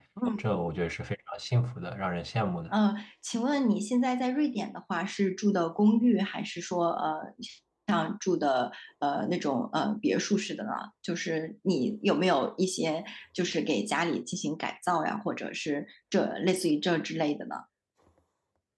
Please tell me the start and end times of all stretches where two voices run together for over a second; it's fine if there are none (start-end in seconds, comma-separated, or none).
none